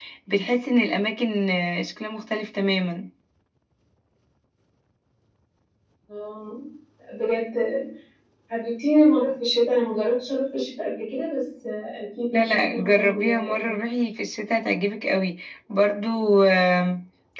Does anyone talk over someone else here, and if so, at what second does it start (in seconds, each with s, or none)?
12.3 s